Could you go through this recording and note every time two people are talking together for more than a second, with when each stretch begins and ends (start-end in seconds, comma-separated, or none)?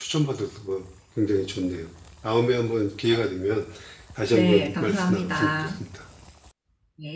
4.3-5.7